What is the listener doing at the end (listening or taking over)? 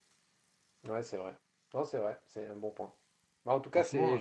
listening